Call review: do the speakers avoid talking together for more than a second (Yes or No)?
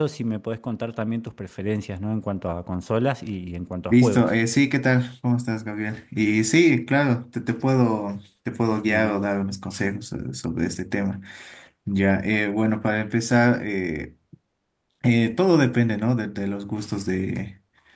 Yes